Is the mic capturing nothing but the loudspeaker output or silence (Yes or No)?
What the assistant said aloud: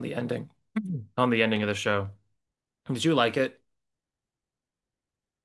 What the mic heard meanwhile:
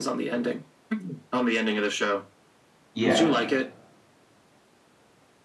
No